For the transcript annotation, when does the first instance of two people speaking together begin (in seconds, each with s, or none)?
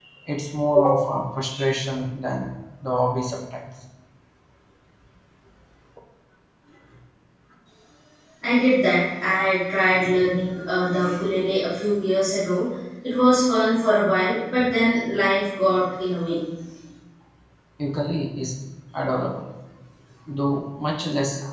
none